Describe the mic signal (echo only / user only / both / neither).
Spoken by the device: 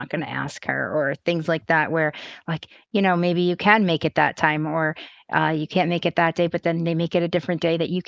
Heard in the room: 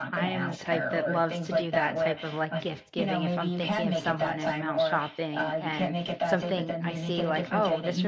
both